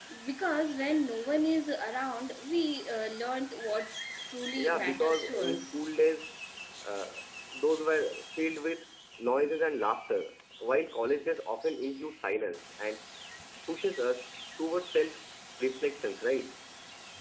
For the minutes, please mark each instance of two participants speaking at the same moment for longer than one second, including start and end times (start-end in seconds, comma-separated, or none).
4.6-5.8